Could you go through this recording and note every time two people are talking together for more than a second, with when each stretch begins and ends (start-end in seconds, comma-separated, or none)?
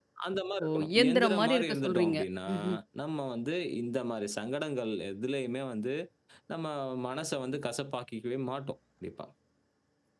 0.6-2.2